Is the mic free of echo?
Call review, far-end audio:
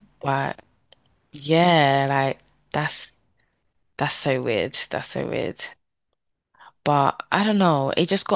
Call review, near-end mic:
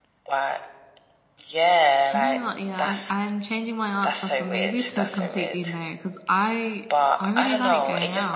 No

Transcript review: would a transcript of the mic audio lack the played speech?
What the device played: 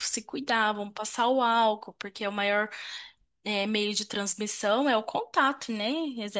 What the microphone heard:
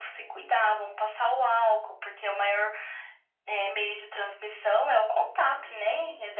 No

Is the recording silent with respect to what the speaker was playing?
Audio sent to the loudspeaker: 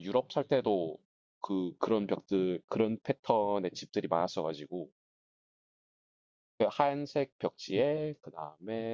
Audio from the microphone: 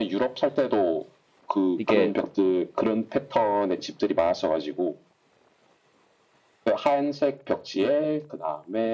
No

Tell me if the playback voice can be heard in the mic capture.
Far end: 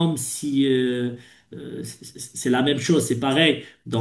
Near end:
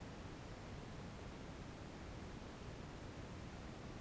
No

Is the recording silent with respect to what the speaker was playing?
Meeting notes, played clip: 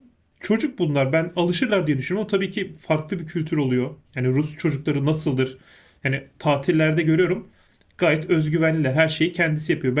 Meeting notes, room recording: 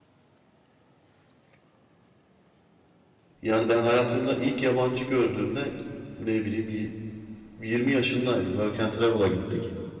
Yes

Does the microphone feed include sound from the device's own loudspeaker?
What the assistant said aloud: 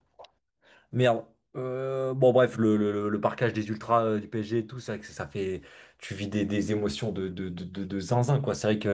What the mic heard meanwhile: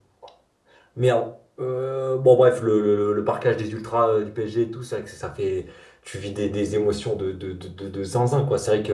Yes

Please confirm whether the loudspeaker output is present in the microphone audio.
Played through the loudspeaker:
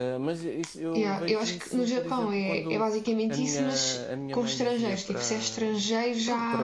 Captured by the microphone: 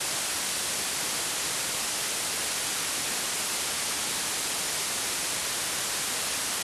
No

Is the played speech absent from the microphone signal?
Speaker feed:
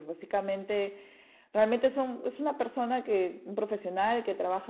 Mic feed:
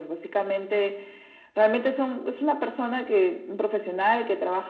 No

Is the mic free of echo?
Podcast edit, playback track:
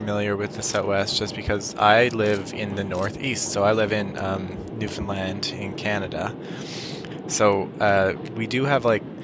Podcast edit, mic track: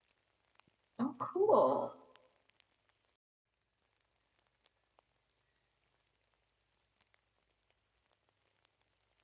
Yes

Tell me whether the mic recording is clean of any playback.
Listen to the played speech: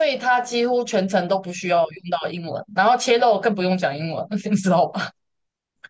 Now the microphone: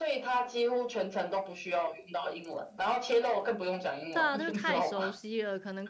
No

